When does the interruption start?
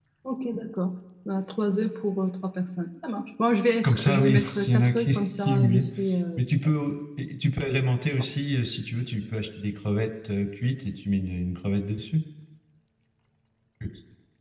3.8 s

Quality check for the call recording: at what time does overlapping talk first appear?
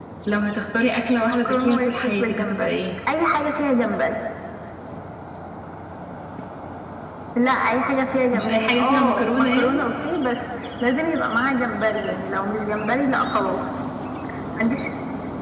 1.2 s

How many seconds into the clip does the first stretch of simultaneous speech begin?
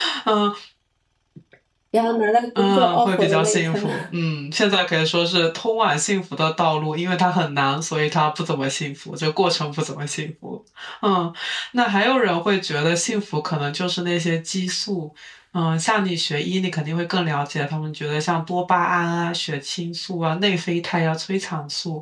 2.6 s

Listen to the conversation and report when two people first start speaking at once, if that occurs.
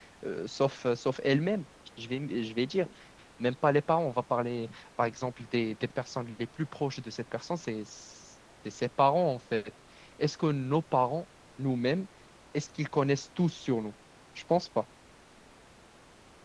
none

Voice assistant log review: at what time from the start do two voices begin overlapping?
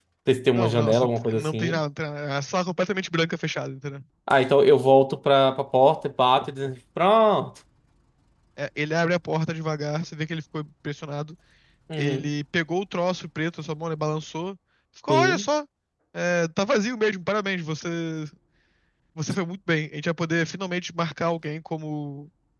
0.6 s

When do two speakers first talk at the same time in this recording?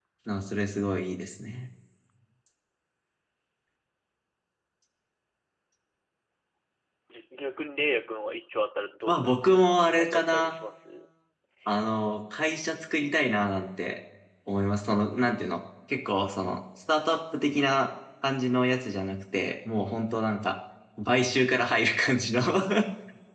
9.1 s

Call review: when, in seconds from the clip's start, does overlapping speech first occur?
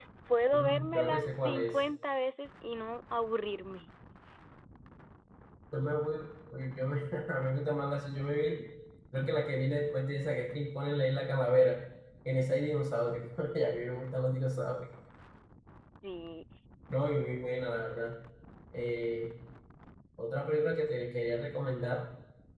0.5 s

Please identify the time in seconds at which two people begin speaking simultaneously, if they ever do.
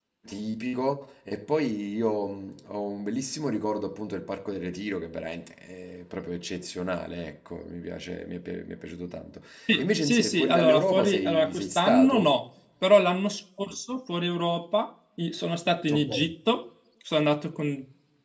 9.8 s

